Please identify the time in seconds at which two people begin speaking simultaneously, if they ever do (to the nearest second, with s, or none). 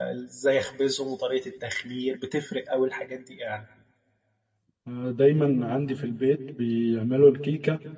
none